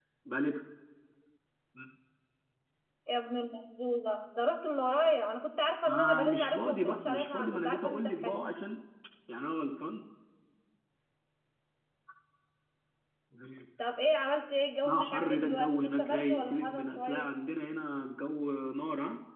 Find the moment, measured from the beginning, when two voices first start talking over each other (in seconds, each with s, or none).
5.8 s